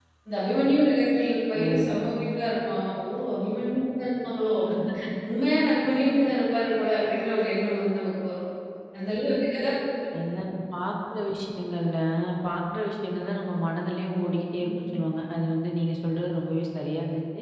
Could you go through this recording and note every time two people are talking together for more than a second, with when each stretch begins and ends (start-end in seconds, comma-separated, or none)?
none